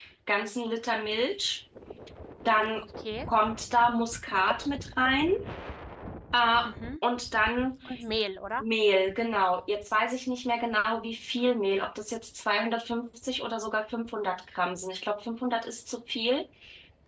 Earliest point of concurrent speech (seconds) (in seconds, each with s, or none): none